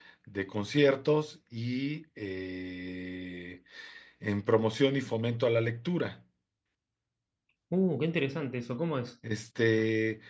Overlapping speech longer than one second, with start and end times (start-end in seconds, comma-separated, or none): none